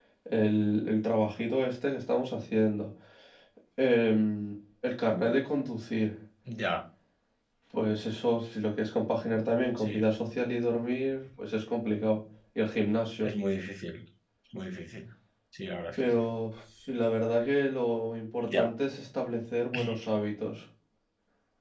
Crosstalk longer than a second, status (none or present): none